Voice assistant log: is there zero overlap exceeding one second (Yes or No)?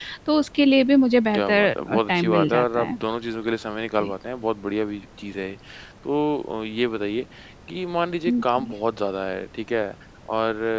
No